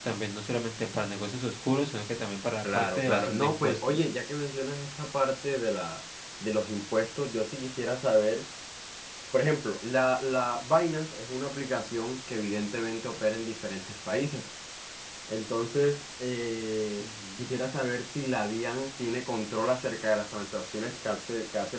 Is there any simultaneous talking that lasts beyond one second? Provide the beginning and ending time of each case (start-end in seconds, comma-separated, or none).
2.6-4.0